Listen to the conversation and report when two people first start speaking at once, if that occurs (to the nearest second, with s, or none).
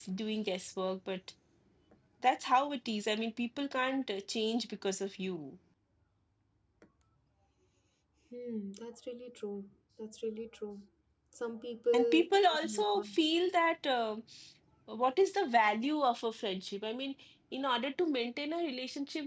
12 s